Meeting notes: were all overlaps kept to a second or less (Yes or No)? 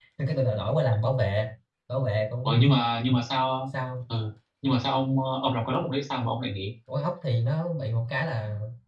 Yes